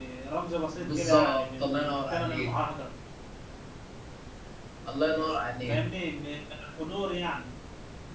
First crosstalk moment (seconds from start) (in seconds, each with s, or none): 0.8 s